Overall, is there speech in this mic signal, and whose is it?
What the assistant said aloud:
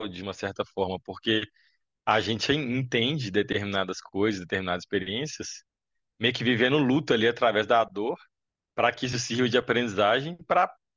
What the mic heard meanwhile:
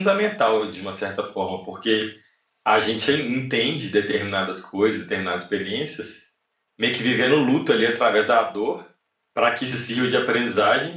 echo only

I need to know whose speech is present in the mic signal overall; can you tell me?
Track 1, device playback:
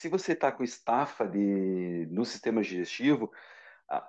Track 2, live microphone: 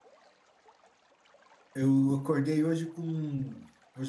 user only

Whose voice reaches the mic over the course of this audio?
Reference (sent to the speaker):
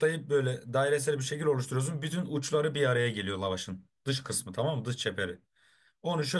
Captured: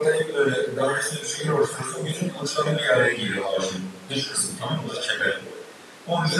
echo only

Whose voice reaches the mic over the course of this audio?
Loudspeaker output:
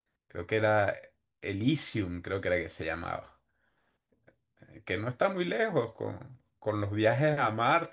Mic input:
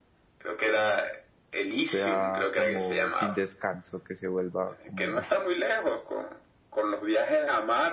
both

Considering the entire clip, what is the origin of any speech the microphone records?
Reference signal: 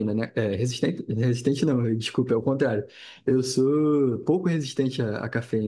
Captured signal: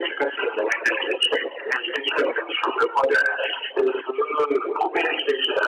echo only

